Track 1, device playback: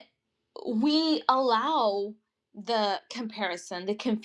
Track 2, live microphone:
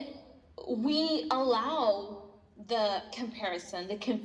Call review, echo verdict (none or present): present